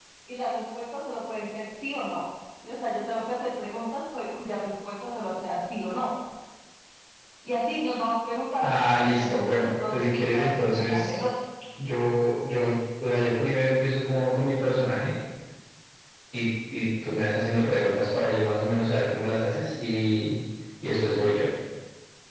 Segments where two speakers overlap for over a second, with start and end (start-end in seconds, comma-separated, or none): 8.6-11.2